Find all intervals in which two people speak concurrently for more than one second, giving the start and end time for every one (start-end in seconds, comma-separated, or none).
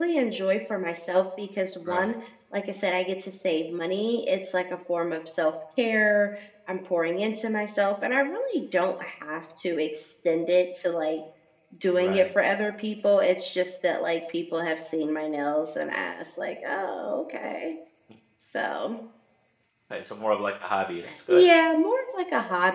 none